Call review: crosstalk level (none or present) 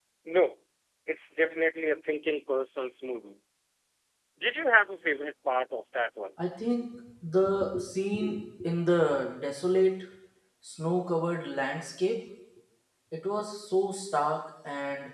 none